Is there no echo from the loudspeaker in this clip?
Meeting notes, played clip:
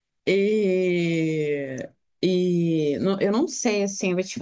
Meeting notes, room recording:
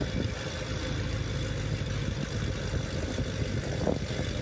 Yes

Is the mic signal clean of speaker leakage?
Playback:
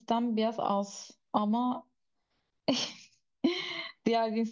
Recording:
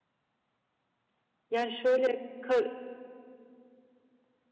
Yes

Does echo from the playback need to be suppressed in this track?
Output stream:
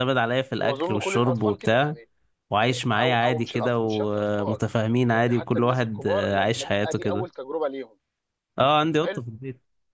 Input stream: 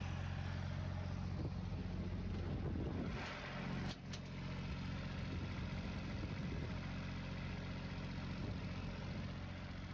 No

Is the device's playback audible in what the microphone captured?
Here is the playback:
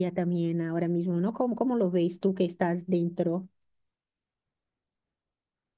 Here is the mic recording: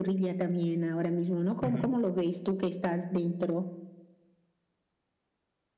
Yes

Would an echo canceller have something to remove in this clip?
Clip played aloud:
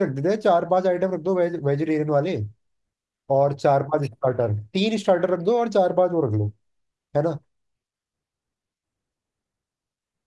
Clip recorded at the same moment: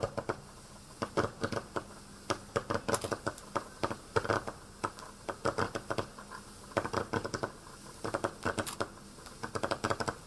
No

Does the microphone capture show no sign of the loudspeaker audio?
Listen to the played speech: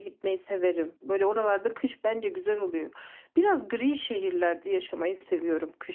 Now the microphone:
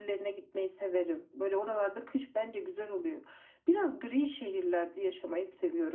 No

